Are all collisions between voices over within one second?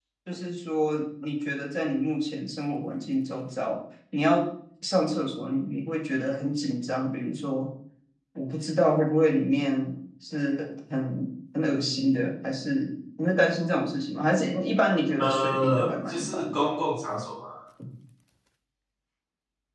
No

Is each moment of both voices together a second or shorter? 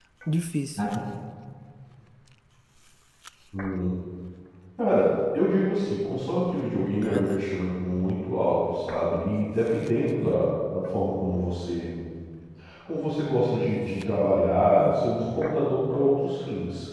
Yes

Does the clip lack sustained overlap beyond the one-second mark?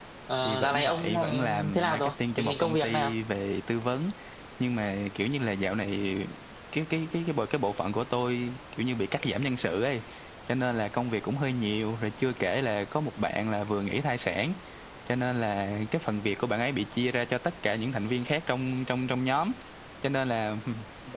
No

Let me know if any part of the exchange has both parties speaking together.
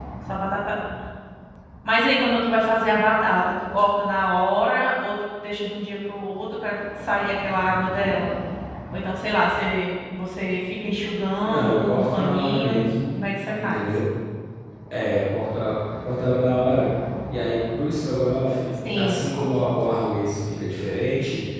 Yes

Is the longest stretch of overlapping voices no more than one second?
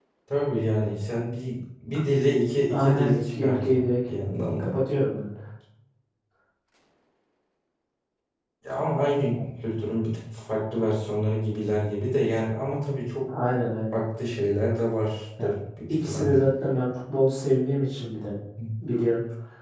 No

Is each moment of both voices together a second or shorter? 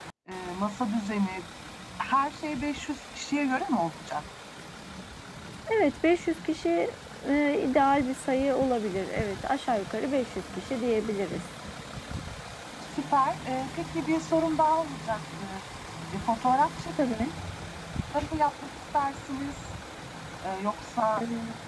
Yes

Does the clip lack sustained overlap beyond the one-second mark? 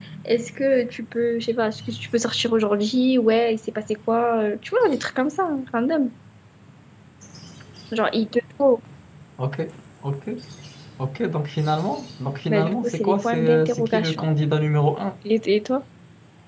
No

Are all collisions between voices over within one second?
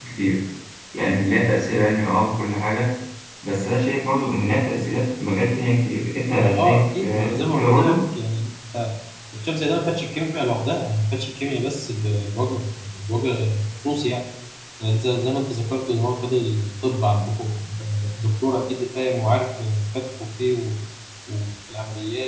No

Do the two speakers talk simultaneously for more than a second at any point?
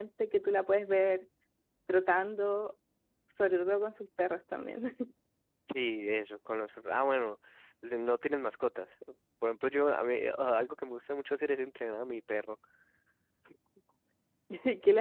No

